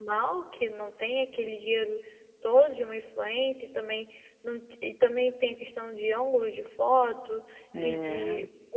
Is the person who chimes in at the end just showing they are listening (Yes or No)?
Yes